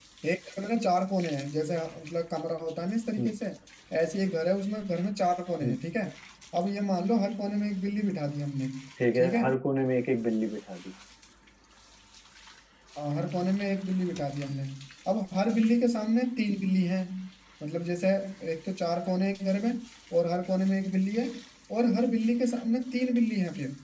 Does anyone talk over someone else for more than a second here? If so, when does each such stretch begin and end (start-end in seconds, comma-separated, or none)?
none